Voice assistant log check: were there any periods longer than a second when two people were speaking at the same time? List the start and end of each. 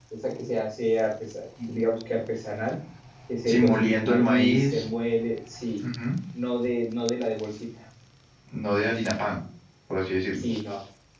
3.5-4.8

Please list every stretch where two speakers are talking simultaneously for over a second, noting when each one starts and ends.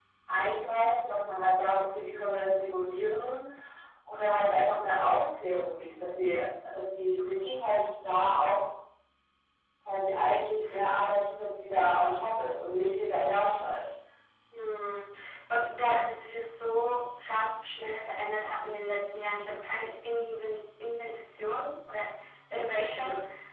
none

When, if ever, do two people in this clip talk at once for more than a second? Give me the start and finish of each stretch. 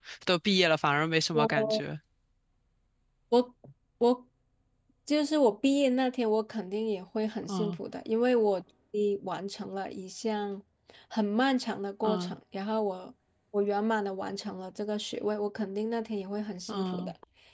none

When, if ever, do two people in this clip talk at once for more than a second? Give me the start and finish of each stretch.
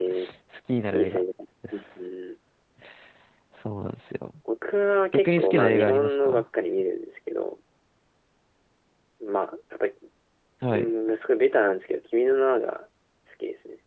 5.1-6.4

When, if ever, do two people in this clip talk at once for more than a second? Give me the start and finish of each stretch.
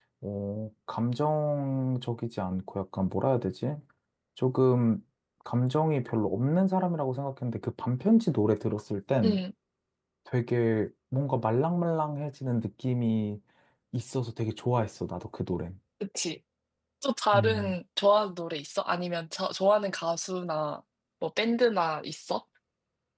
none

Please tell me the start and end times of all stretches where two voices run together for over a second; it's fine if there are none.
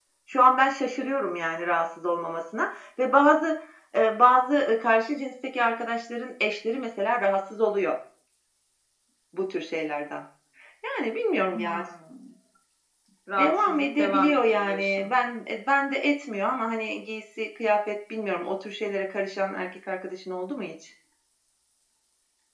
13.3-15.1

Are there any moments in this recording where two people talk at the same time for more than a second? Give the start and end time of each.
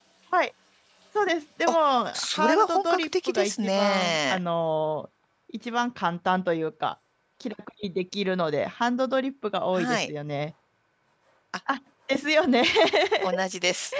2.1-4.4

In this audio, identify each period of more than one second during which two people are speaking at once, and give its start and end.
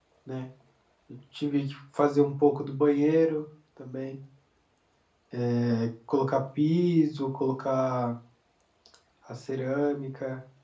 none

